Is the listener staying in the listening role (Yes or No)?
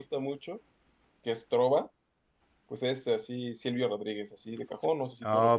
No